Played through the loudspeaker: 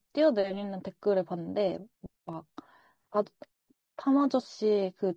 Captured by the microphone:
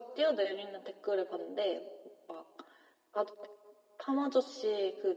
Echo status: present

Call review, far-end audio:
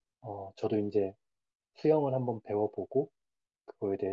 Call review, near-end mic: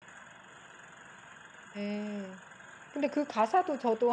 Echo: none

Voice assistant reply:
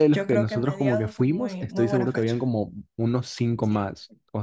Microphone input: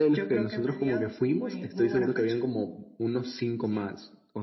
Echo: present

